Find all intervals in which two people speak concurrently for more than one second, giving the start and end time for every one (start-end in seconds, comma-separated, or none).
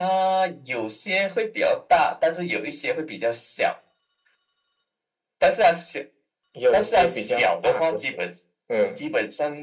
6.7-8.0